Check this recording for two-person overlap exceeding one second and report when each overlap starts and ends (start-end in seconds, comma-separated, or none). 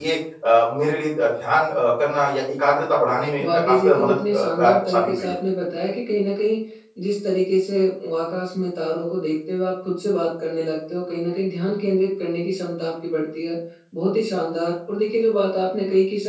3.4-5.4